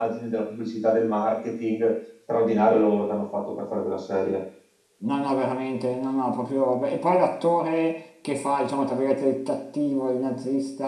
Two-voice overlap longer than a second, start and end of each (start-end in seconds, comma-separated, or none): none